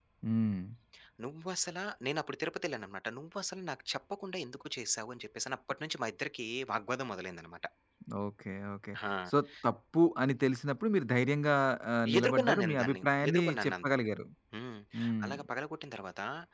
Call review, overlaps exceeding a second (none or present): present